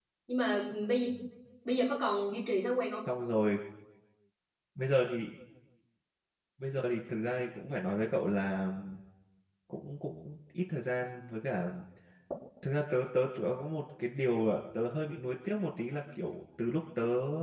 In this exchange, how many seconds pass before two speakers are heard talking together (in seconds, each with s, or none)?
none